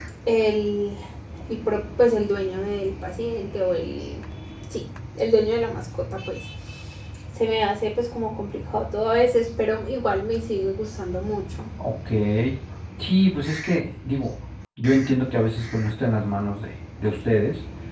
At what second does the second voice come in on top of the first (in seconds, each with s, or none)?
none